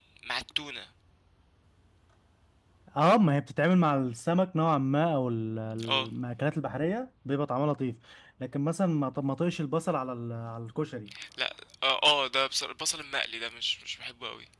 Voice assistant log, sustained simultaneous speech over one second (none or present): none